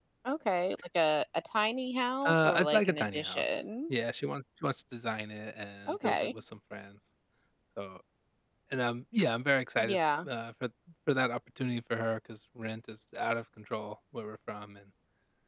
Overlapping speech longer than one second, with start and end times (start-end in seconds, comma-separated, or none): 2.2-3.6